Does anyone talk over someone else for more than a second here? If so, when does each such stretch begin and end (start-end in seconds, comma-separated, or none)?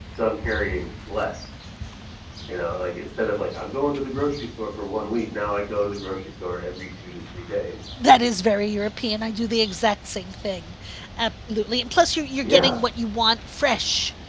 none